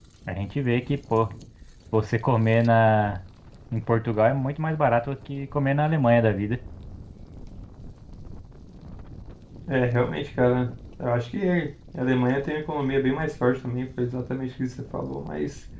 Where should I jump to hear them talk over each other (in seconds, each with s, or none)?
none